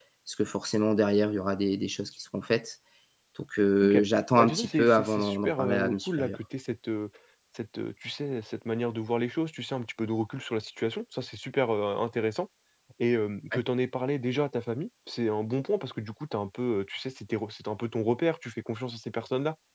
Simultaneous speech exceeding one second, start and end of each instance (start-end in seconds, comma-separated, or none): 4.4-6.4